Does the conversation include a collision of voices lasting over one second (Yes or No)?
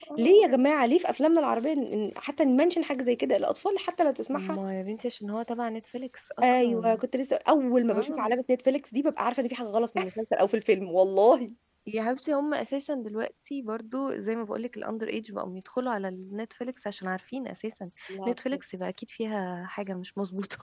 No